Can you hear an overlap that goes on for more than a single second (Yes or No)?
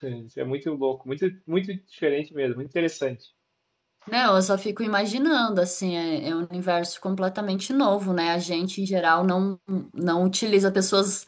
No